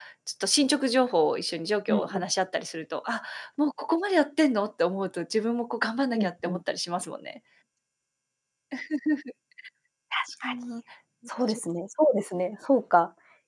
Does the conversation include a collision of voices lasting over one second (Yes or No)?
No